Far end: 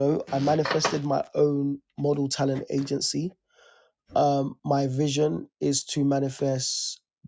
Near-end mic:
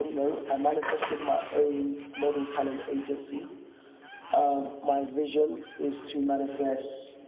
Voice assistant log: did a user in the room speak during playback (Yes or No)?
No